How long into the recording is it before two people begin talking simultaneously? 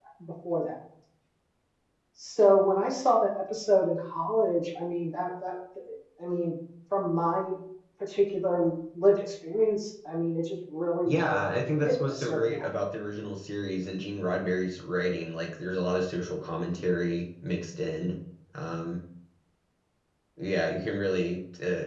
11 s

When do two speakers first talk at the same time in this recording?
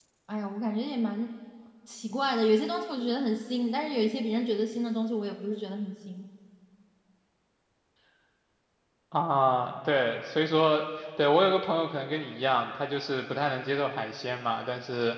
none

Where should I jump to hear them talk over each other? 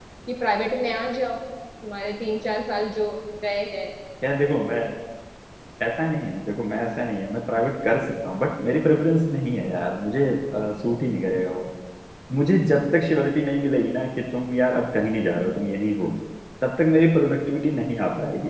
none

